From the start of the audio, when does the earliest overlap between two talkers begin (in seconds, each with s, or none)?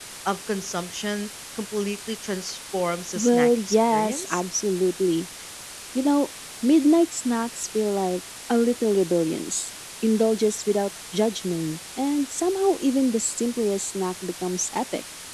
3.1 s